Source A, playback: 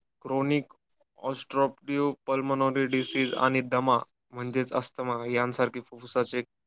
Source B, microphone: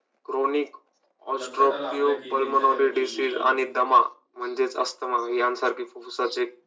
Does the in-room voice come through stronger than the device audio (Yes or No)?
No